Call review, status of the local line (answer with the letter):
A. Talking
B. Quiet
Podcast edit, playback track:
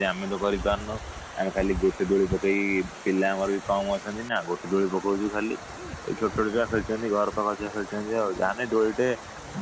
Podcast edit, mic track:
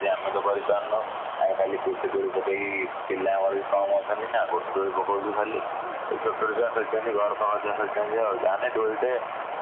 B